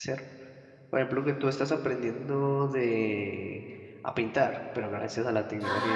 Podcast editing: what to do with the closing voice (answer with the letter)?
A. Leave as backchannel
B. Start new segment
B